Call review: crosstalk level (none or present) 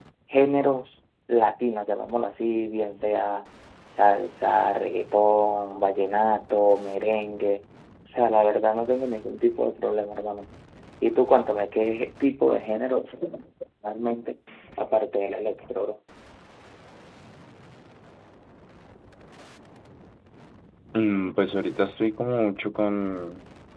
none